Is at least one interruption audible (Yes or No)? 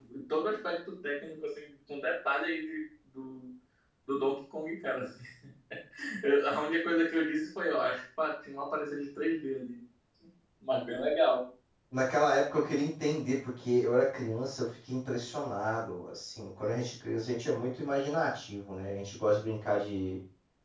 No